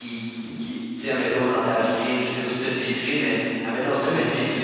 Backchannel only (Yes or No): Yes